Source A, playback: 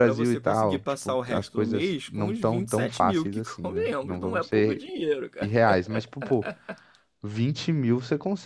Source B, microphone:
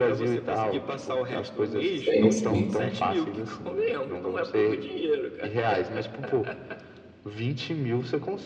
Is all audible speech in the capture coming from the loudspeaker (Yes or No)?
No